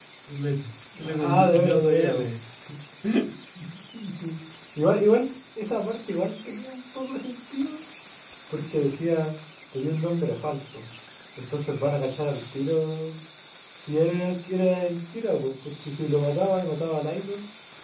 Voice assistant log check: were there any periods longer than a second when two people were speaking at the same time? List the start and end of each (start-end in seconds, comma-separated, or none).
1.0-2.3